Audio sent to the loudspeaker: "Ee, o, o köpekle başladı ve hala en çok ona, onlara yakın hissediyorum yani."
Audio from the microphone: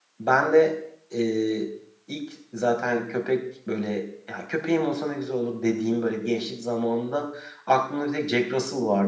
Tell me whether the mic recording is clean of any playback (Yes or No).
Yes